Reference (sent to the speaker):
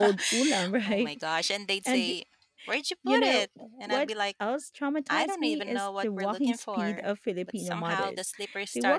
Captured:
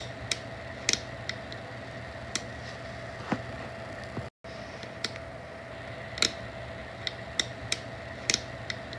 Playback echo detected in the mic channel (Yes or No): No